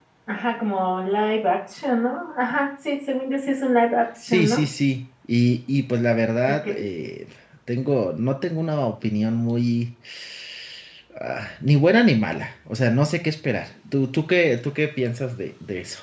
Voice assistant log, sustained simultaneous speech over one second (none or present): none